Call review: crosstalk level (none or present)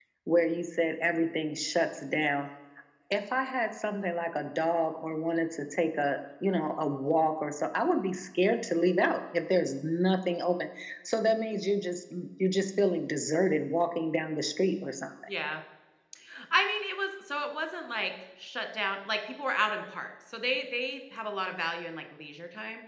none